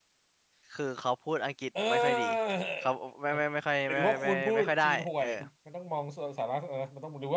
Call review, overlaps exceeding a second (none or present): present